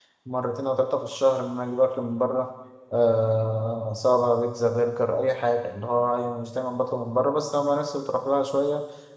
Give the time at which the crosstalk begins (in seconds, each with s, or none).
none